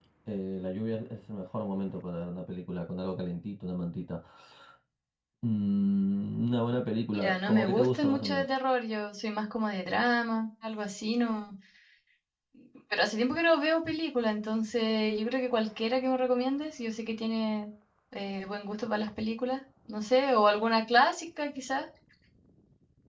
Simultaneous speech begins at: 7 s

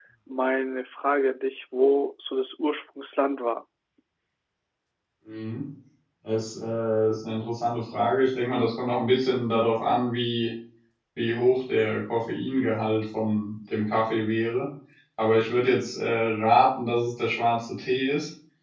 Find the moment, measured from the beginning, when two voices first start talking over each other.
none

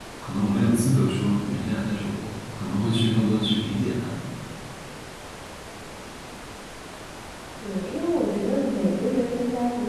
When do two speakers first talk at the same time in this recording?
none

